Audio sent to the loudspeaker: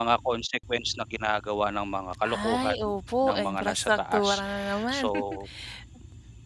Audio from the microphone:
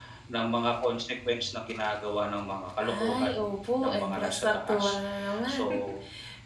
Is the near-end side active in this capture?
No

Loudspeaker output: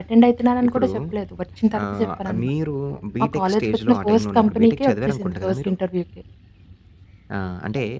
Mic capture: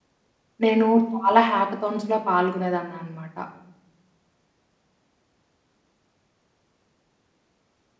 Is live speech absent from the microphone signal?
No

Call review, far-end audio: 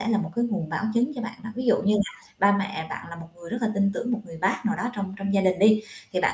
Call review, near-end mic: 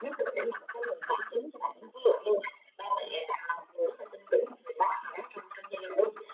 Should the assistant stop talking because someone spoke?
No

